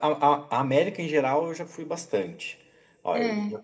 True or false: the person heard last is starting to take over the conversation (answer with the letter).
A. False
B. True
A